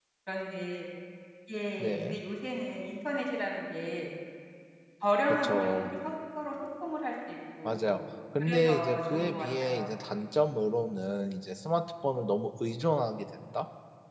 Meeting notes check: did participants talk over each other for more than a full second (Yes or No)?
Yes